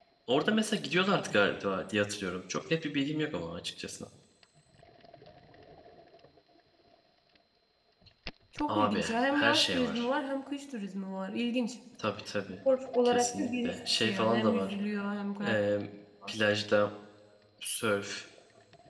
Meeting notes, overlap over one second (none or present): present